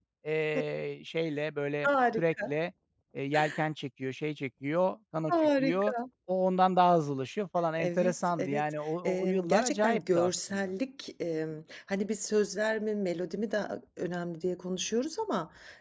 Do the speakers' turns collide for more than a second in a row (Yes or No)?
Yes